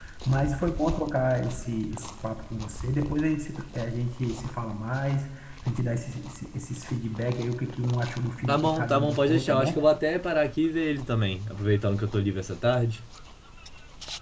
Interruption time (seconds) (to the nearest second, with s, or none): 8 s